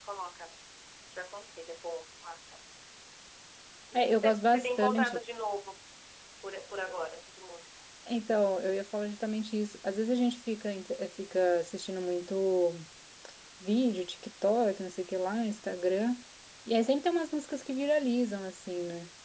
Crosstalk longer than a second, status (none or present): present